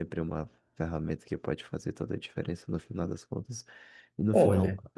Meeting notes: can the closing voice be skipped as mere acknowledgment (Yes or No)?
Yes